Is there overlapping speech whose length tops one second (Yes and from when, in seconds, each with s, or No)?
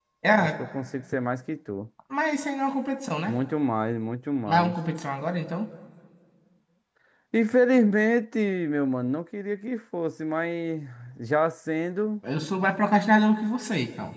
No